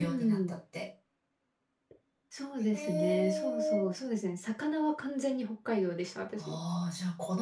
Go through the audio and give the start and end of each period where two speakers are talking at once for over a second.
2.7-3.9

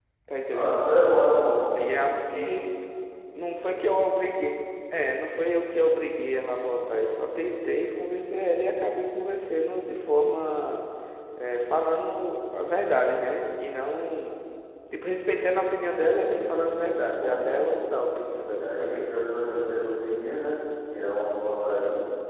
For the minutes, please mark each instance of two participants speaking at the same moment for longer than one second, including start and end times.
16.1-17.8

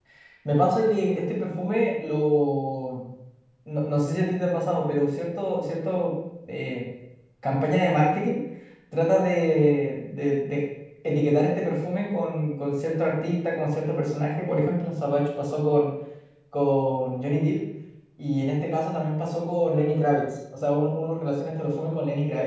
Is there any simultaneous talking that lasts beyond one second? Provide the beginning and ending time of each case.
none

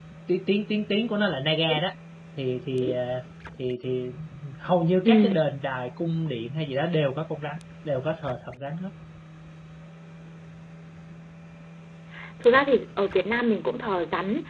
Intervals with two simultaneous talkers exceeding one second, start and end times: none

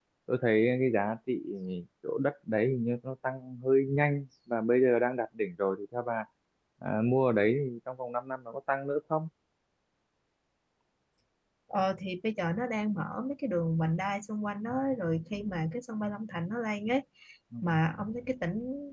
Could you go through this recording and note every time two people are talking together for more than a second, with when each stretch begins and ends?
none

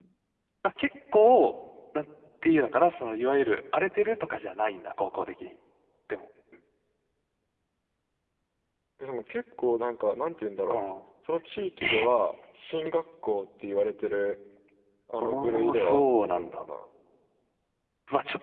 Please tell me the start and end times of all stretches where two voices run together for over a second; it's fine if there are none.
15.2-16.6

